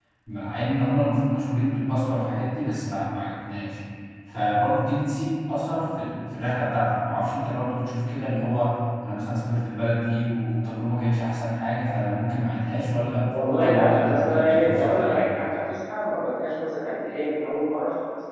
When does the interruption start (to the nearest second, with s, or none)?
13 s